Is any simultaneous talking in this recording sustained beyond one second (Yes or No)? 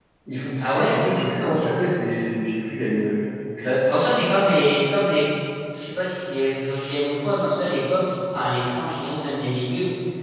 No